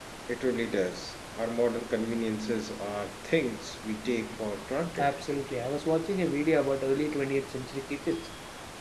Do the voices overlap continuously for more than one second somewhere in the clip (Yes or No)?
No